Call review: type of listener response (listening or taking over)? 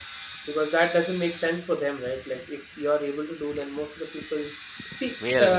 listening